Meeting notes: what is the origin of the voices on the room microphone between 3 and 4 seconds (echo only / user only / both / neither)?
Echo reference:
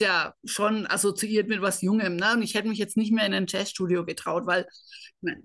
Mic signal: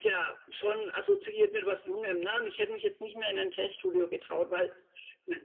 echo only